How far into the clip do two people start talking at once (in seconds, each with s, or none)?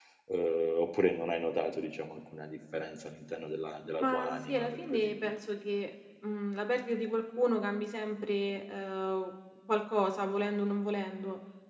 4.0 s